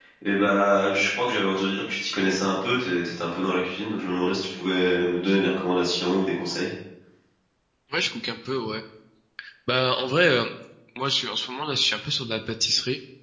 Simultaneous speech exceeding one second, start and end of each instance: none

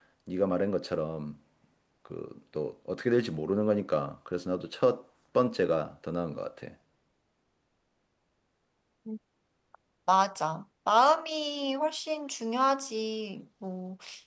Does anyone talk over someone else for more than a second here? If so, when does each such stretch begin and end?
none

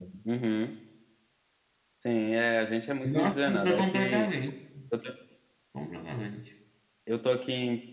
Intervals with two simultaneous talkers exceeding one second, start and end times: 3.0-4.3

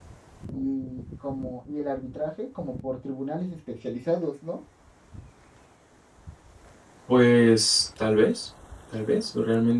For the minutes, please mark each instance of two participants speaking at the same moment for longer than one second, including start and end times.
none

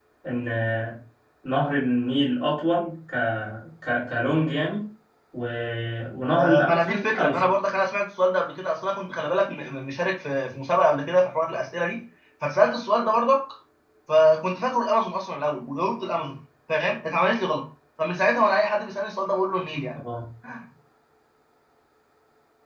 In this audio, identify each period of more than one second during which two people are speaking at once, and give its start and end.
6.3-7.5

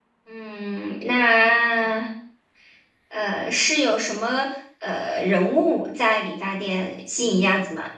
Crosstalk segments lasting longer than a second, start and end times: none

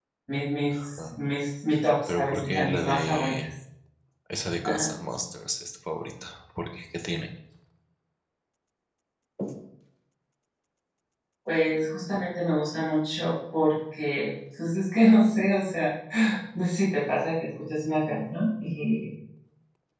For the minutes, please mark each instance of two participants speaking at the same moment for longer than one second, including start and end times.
2.1-3.5

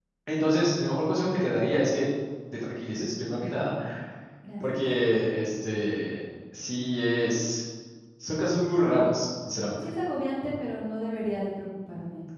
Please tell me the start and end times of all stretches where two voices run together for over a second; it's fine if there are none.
none

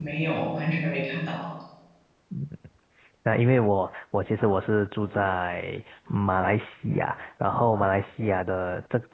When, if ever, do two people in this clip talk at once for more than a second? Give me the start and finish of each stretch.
none

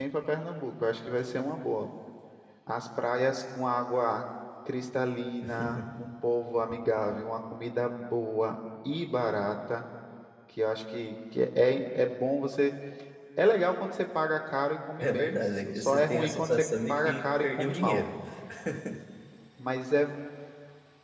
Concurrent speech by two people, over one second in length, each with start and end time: 15.0-18.1

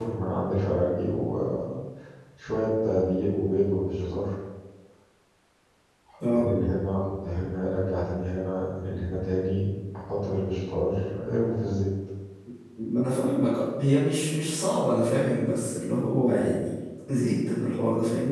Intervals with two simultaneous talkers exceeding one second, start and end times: none

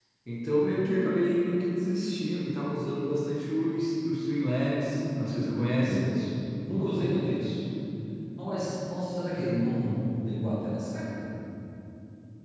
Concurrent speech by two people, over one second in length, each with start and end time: 4.8-6.1

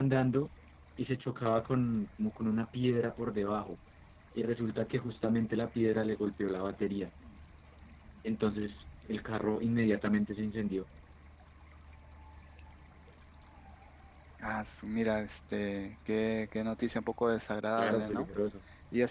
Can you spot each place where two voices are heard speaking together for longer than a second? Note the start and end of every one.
none

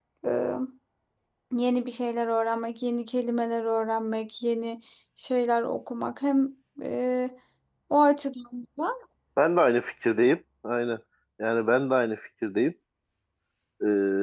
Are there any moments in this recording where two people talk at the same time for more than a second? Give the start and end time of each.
none

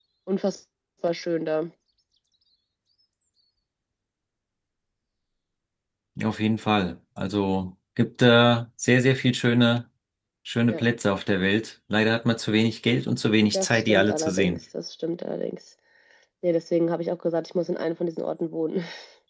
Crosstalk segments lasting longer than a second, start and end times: 13.4-14.6

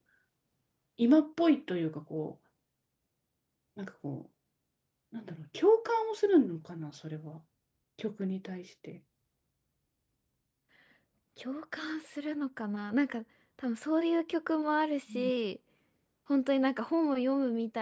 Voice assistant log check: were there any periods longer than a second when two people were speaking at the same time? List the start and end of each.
none

